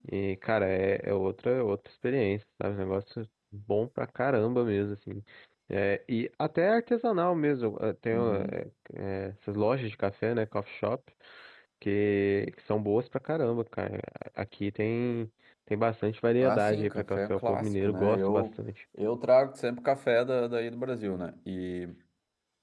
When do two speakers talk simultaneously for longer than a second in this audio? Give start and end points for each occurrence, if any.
16.4-18.5

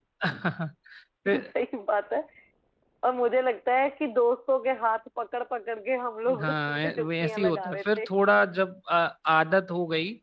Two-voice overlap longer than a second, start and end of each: 6.4-8.0

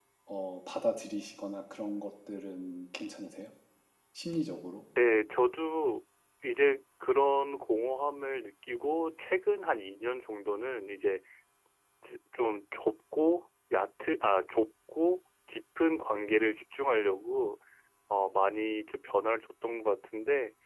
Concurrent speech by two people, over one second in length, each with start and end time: none

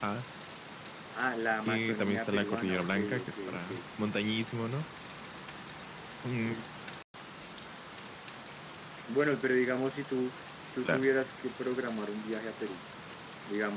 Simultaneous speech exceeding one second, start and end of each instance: 1.7-3.6

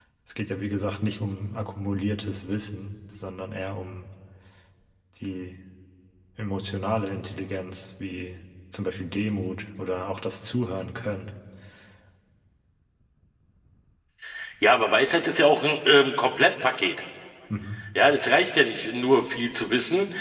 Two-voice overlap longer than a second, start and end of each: none

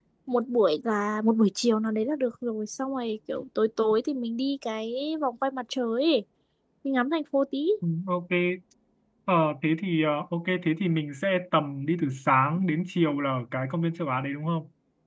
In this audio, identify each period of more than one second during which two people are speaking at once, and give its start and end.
none

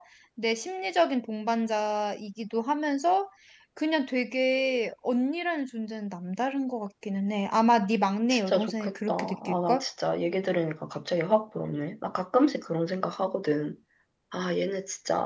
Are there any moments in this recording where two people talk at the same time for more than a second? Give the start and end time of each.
8.3-9.8

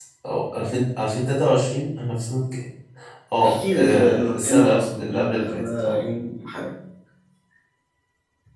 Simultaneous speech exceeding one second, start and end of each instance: 3.4-6.0

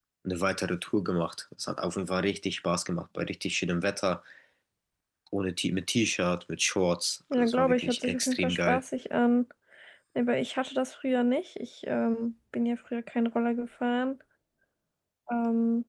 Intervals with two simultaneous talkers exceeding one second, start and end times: 7.3-8.8

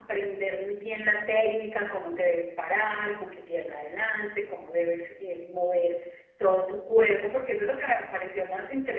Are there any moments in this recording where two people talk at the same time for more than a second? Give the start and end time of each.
none

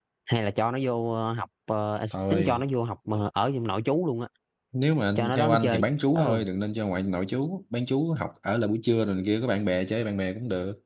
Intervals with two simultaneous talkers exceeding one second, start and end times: 5.2-6.4

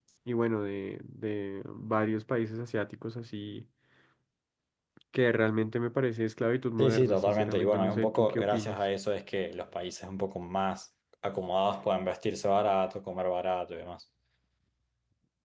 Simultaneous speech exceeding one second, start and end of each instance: 6.8-8.8

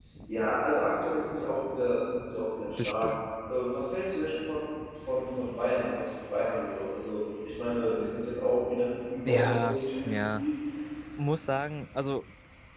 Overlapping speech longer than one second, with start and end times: 9.3-10.5

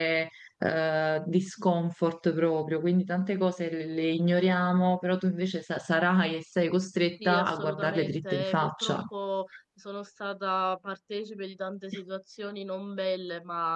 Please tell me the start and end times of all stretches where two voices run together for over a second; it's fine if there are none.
7.2-9.0

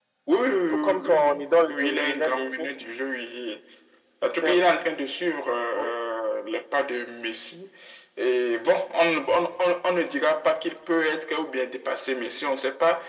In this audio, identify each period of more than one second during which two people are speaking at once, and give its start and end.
0.7-2.7

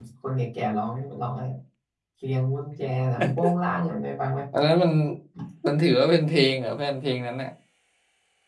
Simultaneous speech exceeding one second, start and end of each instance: none

